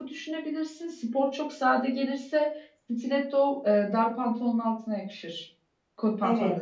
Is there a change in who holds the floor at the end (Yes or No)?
Yes